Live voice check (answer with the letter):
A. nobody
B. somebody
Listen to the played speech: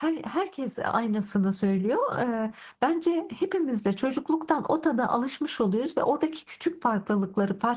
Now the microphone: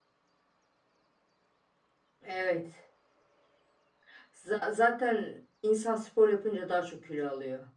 B